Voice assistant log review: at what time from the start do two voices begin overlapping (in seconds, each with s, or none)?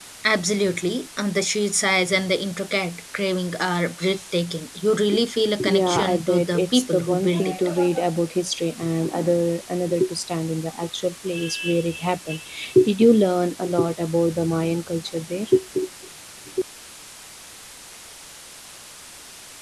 5.7 s